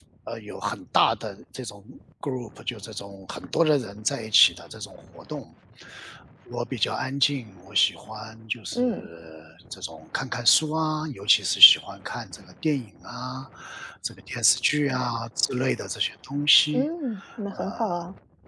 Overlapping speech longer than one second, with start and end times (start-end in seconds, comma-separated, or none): none